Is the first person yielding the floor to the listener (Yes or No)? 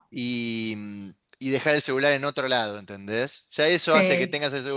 No